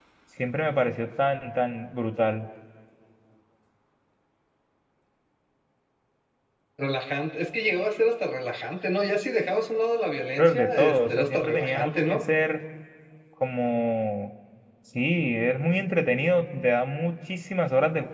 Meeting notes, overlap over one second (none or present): present